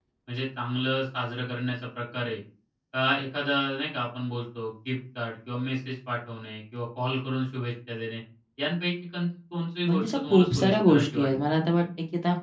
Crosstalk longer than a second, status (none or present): present